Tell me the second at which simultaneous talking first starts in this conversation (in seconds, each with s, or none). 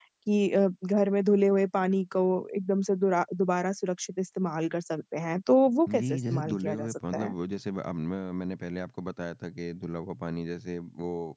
5.9 s